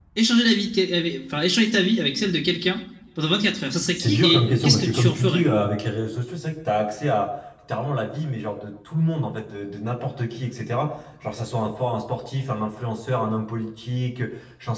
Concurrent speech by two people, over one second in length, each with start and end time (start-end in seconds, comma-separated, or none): 4.0-5.5